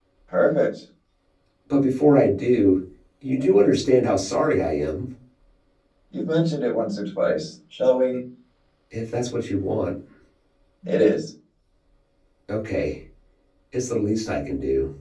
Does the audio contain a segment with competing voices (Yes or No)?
No